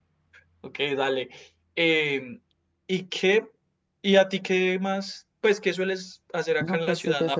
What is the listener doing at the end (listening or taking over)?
taking over